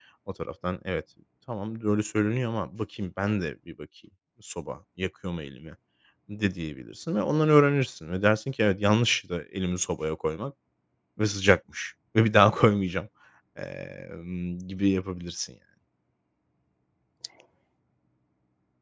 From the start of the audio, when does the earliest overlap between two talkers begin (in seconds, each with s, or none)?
none